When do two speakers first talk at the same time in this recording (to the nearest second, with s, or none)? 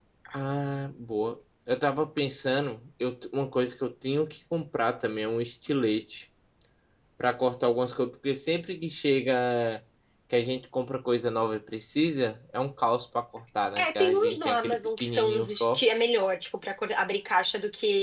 14 s